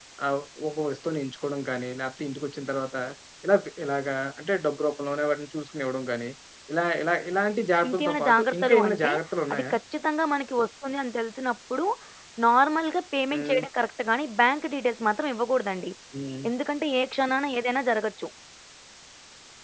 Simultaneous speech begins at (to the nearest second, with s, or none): 8 s